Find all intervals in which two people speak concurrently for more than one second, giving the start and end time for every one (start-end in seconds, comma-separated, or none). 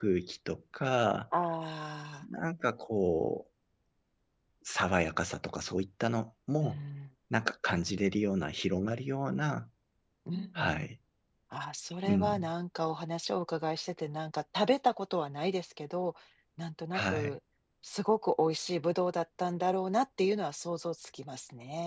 none